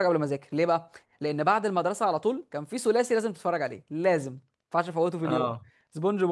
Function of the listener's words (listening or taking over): listening